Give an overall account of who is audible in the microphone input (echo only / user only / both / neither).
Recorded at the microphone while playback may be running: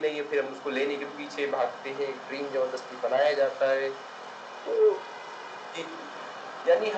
echo only